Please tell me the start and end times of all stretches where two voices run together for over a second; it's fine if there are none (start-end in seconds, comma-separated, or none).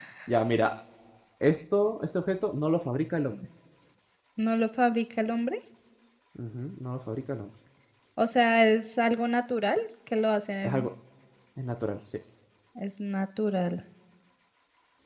none